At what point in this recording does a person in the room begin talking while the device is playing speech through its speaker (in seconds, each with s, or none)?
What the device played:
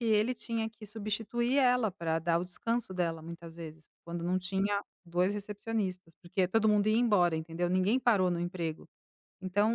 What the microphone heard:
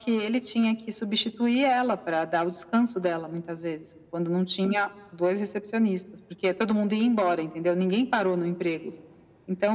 none